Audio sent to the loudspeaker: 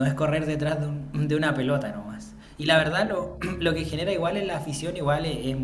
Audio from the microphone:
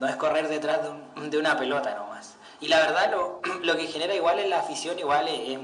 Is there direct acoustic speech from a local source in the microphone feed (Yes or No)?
No